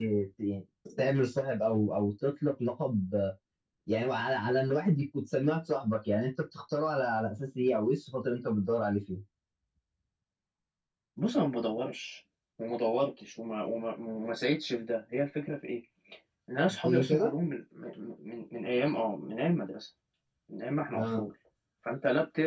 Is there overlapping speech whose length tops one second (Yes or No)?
No